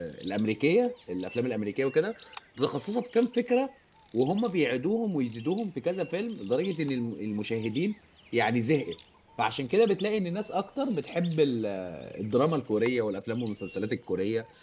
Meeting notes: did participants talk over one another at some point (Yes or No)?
No